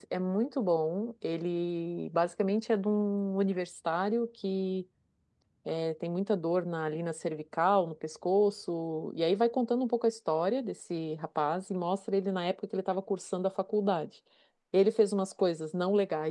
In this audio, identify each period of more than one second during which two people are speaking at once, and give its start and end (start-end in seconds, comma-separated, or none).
none